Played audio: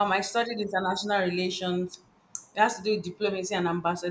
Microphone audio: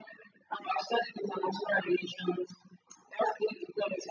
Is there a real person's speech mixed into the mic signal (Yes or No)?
No